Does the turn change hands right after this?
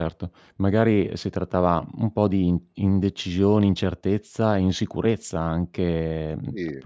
No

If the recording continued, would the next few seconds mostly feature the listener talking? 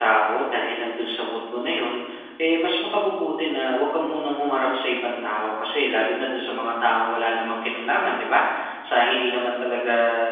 No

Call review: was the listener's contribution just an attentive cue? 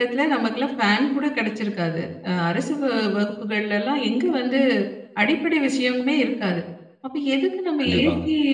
Yes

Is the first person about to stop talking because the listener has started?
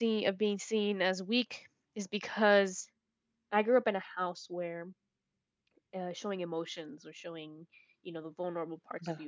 No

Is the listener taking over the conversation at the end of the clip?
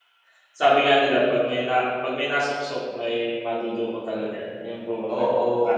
Yes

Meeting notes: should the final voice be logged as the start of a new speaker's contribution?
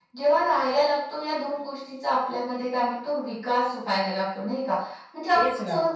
No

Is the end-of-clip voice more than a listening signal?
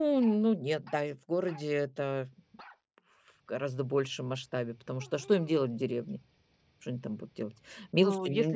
Yes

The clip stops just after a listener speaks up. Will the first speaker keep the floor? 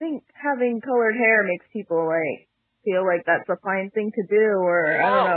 Yes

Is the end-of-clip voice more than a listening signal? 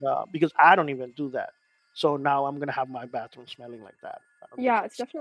Yes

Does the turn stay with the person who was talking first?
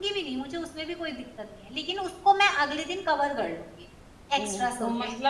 No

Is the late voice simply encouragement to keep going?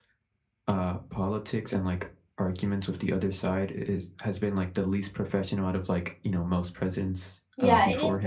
No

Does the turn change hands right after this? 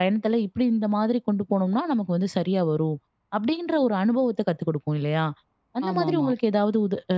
No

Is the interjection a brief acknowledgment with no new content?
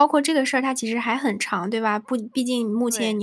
Yes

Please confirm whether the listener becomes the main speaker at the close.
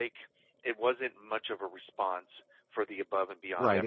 Yes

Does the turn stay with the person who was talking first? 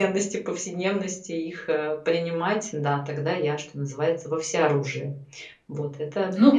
No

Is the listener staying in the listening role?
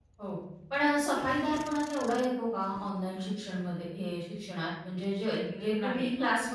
Yes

